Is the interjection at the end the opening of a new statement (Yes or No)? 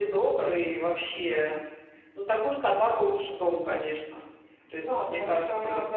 Yes